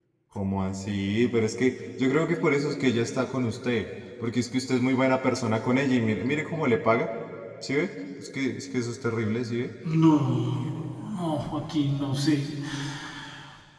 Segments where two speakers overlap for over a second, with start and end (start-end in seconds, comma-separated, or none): none